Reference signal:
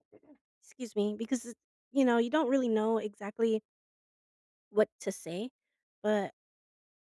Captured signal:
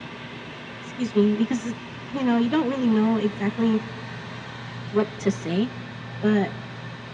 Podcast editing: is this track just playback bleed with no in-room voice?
Yes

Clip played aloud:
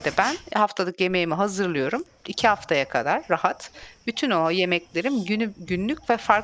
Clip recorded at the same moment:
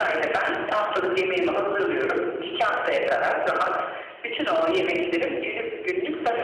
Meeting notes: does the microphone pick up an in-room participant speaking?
No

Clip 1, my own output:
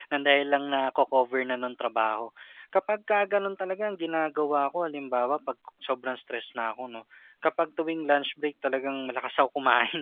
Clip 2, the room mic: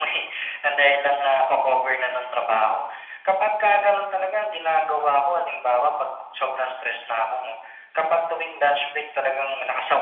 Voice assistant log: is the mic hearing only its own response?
Yes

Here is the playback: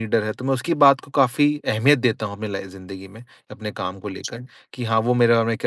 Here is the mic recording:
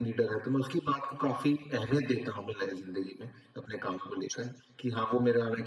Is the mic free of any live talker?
Yes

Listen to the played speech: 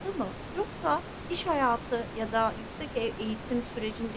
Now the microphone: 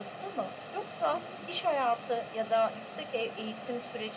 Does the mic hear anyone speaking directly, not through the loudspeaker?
Yes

